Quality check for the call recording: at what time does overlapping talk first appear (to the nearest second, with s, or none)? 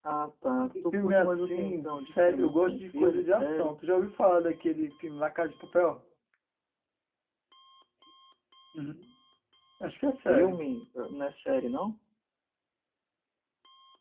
1 s